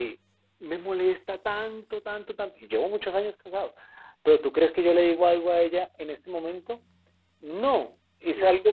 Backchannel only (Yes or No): Yes